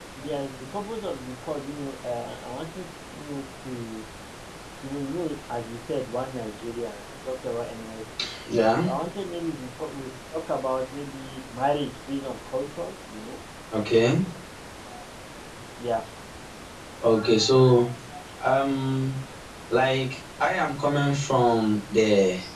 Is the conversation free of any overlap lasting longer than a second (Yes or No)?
Yes